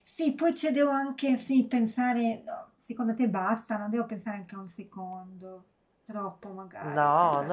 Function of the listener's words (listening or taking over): taking over